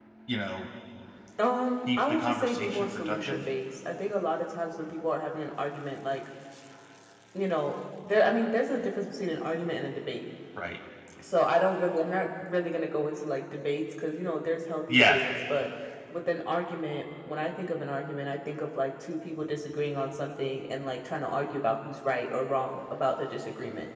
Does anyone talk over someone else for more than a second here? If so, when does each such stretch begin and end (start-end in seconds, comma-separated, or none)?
1.9-3.4